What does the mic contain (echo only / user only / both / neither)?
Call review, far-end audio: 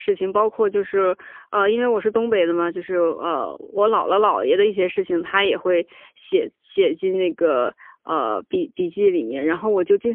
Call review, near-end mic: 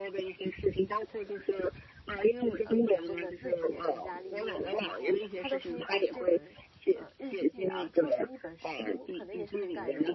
both